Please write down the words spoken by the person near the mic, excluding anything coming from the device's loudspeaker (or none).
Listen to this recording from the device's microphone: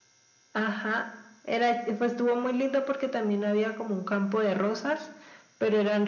none